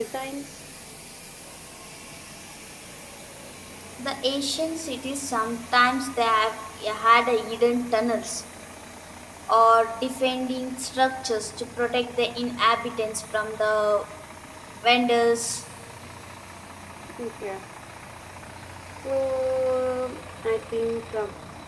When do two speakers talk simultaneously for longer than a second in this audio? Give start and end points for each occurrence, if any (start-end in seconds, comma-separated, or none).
none